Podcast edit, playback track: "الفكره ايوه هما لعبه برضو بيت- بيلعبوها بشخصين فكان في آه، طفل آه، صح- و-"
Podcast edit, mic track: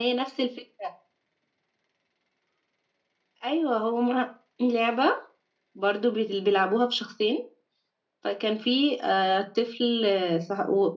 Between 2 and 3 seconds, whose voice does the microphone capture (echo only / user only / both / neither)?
neither